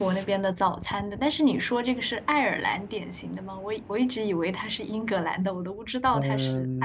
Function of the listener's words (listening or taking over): taking over